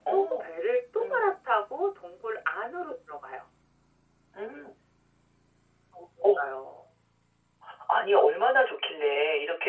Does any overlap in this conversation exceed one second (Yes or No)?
No